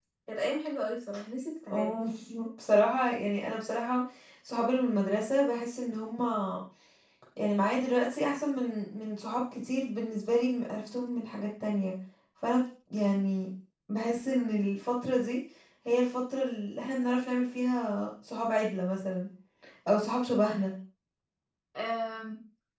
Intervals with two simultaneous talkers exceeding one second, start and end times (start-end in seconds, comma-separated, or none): none